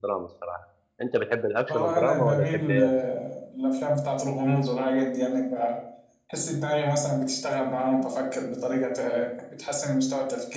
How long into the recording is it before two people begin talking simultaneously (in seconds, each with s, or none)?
1.7 s